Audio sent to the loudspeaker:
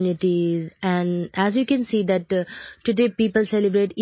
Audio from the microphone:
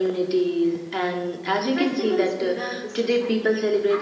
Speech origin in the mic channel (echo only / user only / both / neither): both